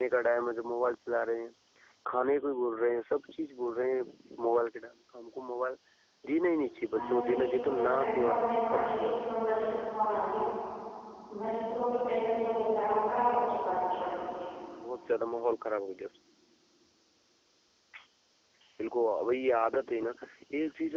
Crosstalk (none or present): present